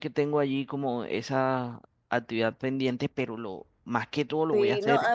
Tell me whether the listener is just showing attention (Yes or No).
No